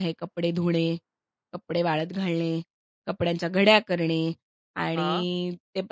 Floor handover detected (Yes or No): No